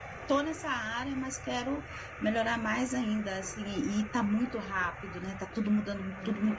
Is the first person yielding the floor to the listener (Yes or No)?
Yes